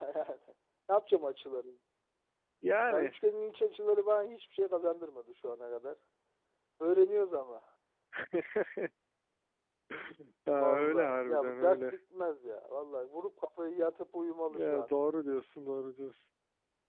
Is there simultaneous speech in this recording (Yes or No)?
Yes